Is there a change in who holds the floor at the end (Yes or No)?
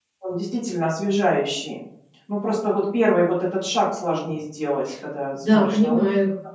Yes